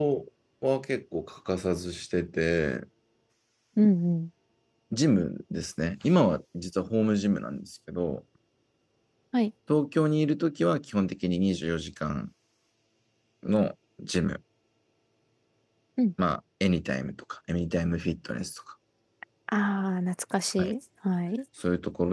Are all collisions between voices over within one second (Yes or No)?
Yes